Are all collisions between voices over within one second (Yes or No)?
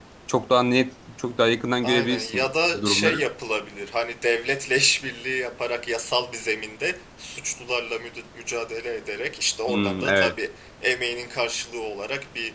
No